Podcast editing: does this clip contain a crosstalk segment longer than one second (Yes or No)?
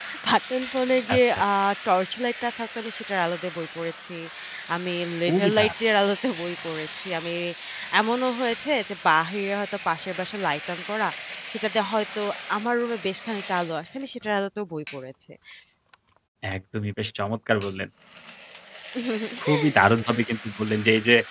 No